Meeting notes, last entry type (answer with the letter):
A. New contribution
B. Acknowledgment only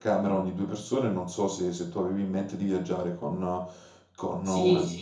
A